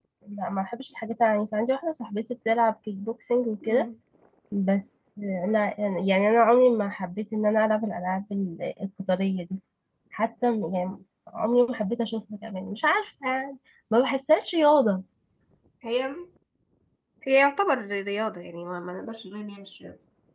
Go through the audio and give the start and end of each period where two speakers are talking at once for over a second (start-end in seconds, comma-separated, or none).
none